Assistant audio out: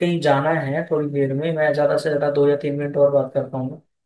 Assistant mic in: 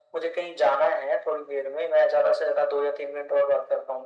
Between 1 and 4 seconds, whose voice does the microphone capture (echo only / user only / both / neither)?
echo only